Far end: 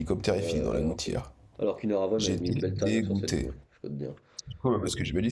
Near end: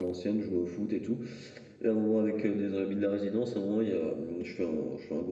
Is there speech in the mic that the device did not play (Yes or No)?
Yes